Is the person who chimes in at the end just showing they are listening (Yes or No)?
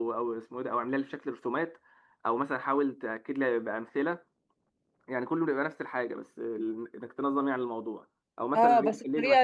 No